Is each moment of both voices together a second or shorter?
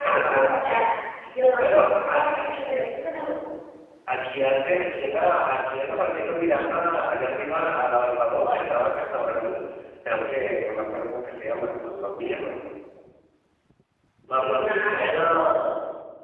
No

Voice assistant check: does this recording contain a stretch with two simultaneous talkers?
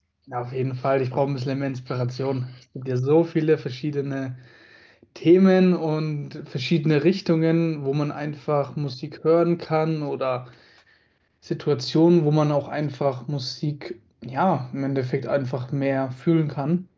No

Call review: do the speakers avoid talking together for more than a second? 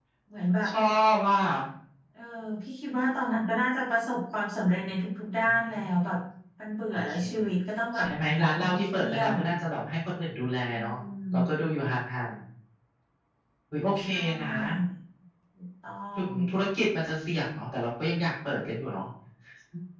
No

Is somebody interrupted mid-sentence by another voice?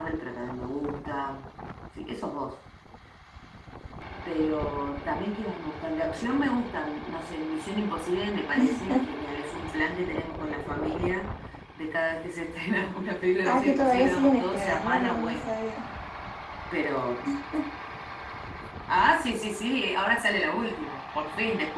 Yes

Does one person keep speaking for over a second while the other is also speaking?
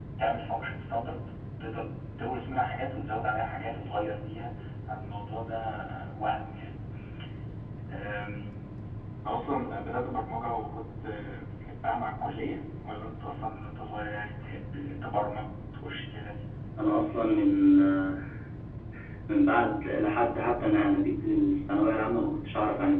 No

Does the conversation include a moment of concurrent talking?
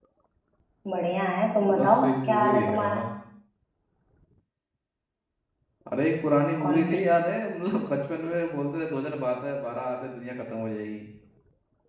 Yes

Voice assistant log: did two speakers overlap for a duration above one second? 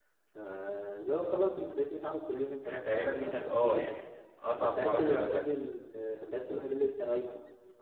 Yes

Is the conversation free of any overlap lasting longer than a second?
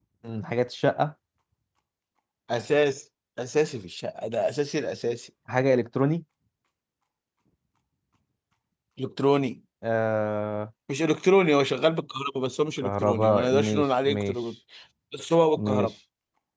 No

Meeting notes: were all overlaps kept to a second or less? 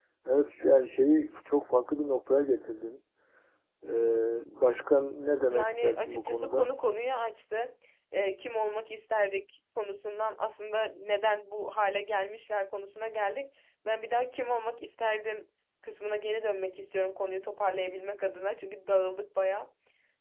No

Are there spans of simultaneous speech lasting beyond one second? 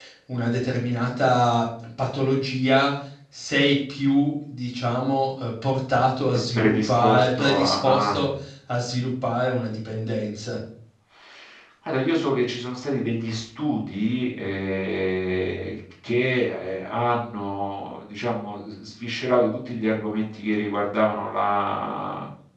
Yes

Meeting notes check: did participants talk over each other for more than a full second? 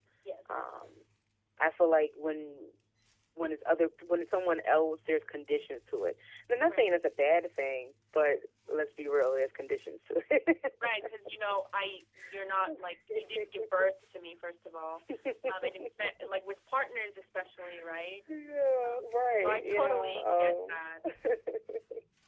Yes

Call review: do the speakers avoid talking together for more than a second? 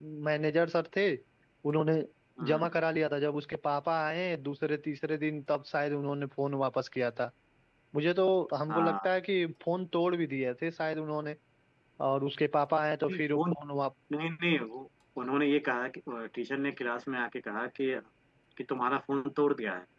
Yes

